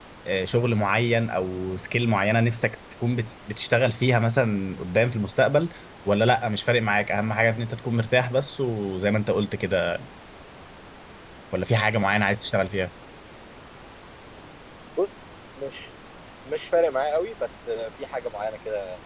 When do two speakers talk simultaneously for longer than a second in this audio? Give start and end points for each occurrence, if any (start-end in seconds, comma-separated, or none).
none